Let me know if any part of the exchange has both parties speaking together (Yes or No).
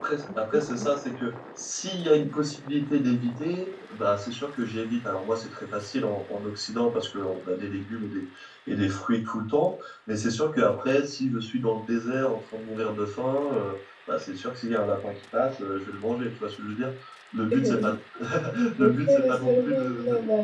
Yes